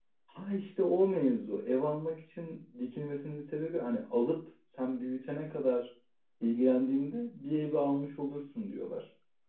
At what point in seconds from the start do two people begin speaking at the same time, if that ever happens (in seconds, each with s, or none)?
none